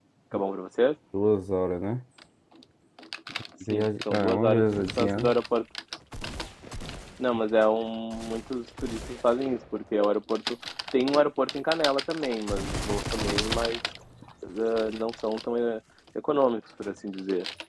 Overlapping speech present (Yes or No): Yes